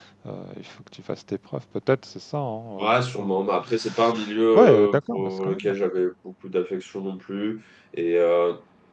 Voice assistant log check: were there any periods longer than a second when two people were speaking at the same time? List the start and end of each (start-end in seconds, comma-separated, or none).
4.5-5.7